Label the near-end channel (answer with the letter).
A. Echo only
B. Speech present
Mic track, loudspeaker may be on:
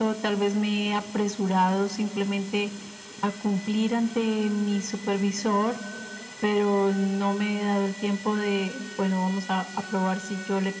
A